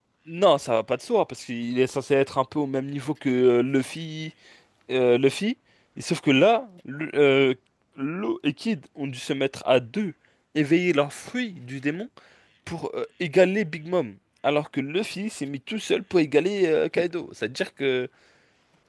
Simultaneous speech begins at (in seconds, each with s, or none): none